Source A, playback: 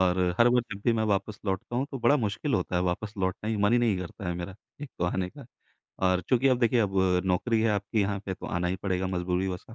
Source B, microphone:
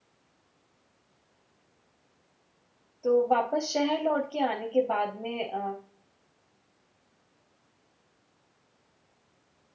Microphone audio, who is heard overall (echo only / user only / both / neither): user only